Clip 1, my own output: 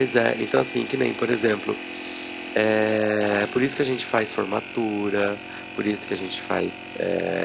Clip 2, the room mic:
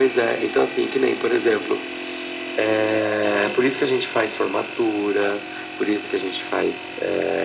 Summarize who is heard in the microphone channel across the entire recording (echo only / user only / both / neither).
echo only